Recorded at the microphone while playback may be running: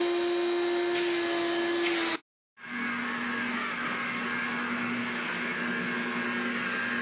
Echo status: none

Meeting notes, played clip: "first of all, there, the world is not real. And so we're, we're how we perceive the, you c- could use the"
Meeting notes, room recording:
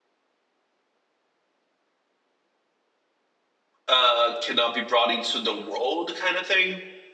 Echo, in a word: none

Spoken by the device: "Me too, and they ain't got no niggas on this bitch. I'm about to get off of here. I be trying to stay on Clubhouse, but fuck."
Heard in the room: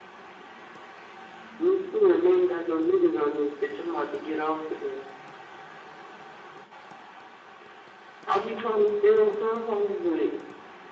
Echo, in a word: present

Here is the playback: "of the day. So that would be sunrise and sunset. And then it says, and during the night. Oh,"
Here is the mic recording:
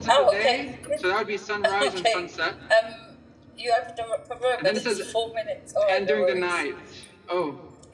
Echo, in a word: present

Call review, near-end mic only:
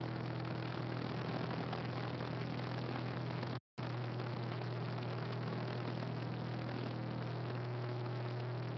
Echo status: none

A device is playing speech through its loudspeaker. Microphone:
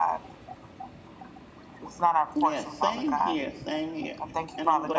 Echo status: present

